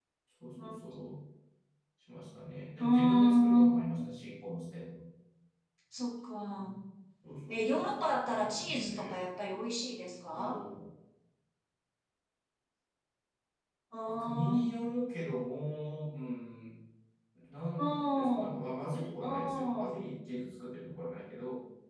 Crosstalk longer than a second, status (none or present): present